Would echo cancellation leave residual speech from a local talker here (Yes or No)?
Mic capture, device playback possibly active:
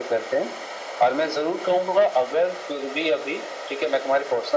No